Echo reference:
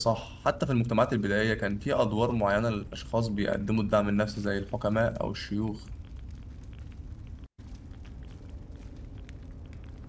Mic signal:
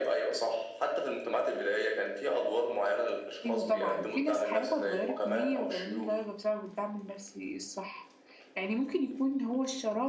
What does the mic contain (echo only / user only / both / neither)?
both